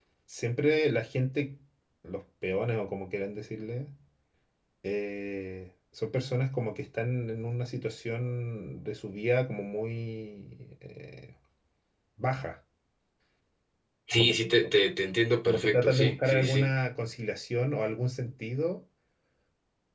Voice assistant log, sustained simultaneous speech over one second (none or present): present